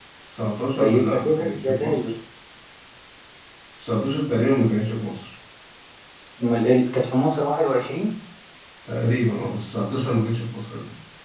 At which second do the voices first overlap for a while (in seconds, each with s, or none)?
0.8 s